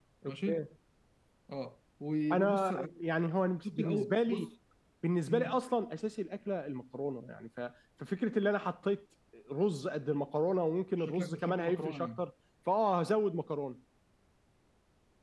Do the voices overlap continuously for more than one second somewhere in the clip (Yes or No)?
Yes